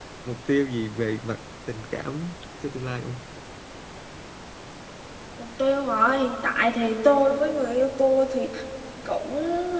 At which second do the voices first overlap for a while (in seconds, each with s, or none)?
none